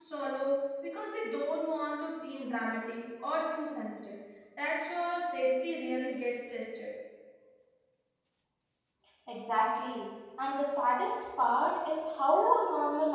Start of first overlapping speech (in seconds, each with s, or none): none